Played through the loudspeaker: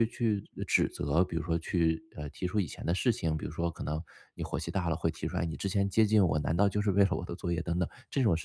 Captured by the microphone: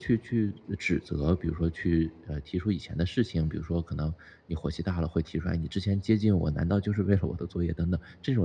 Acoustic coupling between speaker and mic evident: Yes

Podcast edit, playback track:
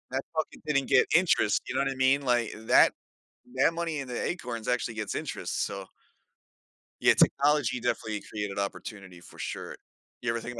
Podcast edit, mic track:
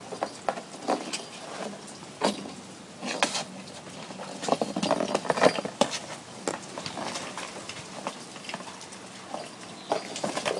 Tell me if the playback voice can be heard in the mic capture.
No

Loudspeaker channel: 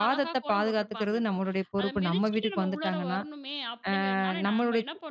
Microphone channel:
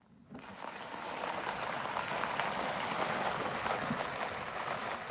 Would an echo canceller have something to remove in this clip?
No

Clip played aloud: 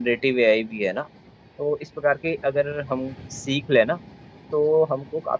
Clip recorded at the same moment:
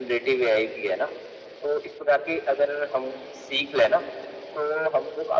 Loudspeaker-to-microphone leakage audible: Yes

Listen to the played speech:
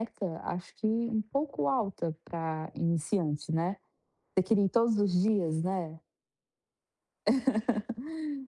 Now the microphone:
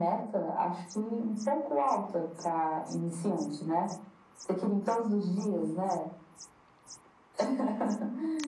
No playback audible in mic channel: No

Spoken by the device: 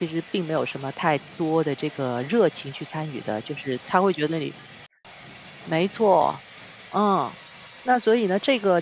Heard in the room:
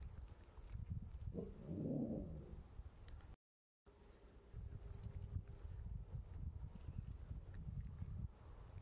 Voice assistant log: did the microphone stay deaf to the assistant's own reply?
Yes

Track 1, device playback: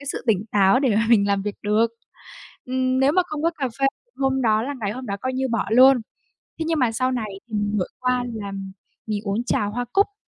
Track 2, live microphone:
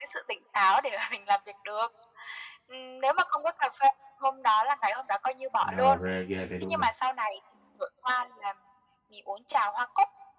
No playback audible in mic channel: No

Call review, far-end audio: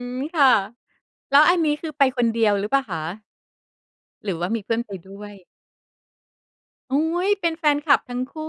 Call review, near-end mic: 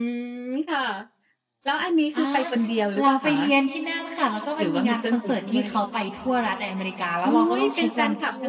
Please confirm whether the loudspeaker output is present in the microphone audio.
Yes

